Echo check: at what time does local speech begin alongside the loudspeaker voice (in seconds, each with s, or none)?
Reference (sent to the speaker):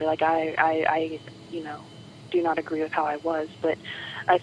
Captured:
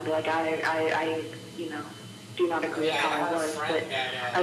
2.7 s